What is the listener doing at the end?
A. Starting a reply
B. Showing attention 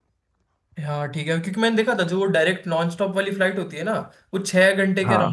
B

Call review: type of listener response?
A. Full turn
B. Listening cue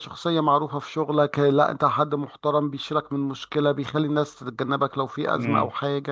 A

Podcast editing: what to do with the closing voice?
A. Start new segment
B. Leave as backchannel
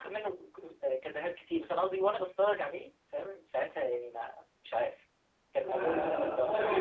A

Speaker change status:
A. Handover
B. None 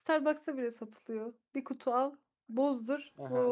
A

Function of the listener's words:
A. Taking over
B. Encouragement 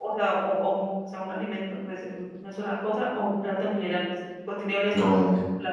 A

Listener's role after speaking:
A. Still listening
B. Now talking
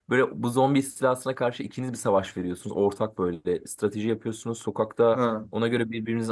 A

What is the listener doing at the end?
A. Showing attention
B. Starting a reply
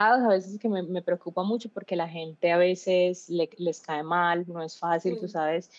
A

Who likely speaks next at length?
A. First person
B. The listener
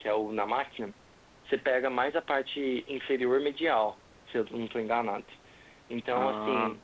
A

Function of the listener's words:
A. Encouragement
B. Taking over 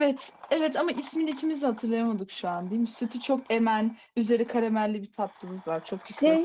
B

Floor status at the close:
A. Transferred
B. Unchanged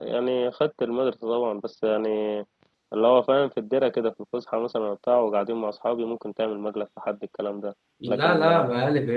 A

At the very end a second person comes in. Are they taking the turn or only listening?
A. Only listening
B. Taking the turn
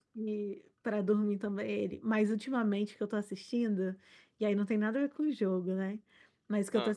A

